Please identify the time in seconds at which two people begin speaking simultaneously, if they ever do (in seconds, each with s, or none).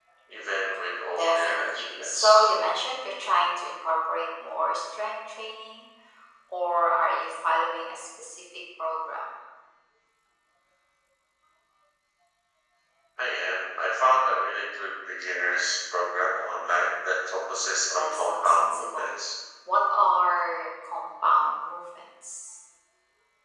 1.1 s